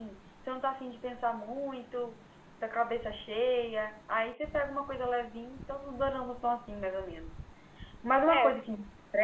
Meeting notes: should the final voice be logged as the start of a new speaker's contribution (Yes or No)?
No